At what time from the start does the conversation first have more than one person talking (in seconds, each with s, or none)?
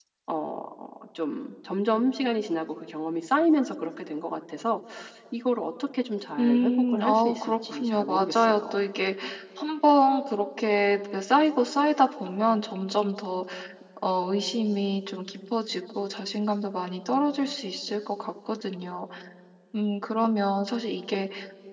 6.4 s